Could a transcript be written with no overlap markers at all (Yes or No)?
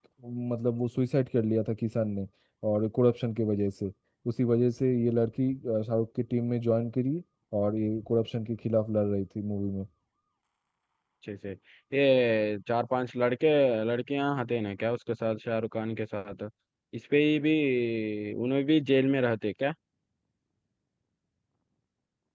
Yes